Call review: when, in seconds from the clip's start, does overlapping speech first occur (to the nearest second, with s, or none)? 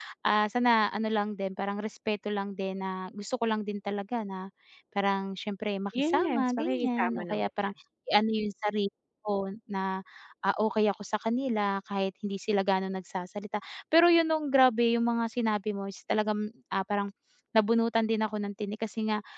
6 s